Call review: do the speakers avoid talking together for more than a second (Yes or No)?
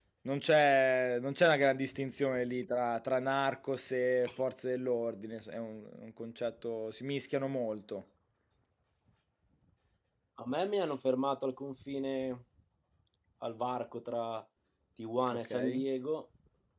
Yes